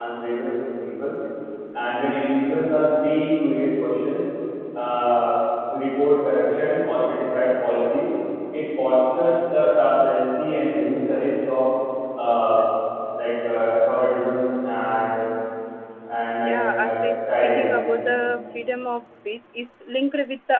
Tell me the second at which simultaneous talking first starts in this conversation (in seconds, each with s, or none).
16.4 s